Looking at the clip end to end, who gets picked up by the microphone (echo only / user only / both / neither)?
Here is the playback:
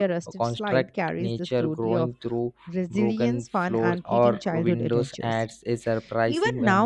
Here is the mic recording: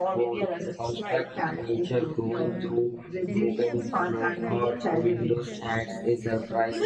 both